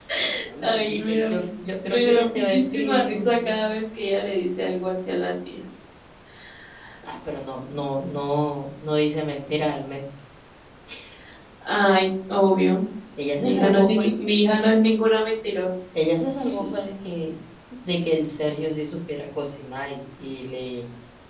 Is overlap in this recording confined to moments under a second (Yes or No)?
No